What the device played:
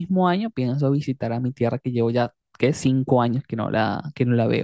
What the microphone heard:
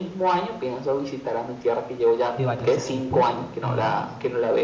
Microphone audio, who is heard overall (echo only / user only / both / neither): both